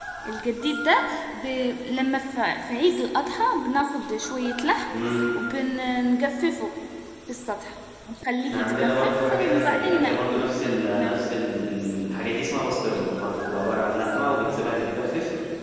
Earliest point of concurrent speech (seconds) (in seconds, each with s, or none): 8.4 s